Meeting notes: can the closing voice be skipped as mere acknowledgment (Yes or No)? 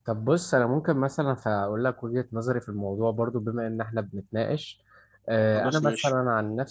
Yes